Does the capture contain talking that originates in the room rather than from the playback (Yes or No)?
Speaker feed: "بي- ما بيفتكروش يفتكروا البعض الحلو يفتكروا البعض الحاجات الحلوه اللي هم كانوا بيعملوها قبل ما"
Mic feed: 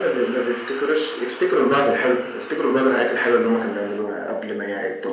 No